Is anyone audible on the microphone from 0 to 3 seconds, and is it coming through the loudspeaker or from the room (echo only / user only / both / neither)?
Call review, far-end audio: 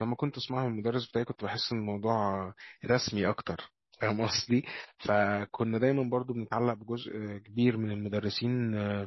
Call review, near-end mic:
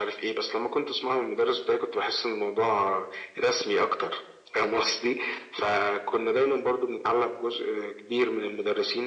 echo only